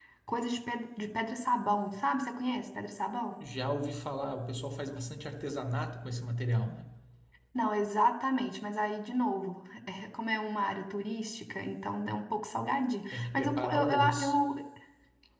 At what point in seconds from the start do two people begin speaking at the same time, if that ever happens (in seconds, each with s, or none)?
13.1 s